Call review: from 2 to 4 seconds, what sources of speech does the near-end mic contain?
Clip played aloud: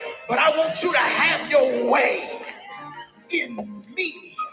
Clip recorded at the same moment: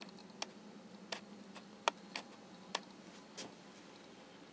neither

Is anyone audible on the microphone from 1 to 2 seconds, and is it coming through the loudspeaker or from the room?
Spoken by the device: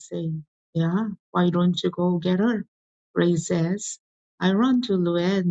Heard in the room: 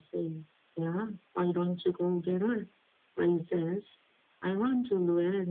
echo only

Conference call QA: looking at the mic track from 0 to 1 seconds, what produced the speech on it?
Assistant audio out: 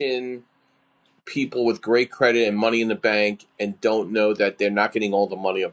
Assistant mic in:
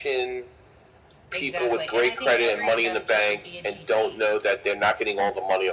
echo only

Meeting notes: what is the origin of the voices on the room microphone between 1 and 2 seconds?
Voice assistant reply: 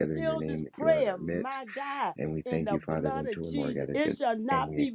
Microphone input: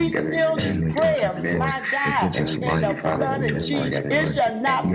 both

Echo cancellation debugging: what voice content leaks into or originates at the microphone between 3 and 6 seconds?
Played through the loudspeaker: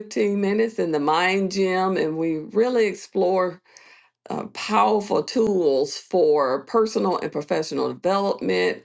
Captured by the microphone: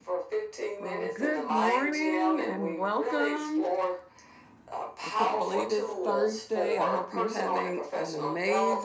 both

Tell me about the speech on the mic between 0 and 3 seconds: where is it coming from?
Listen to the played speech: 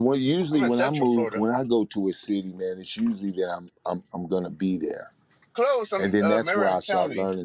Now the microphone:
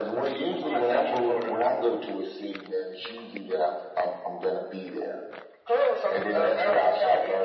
echo only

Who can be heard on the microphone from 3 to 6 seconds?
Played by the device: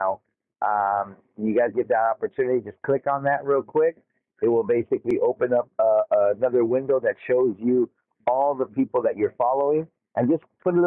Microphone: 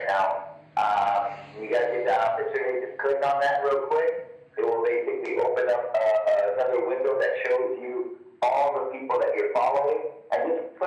echo only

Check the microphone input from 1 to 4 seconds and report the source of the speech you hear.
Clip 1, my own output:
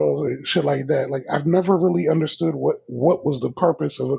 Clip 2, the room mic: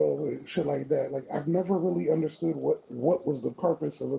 echo only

